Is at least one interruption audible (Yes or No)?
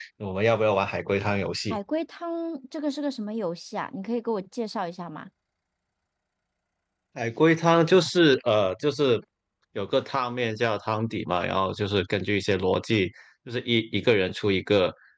No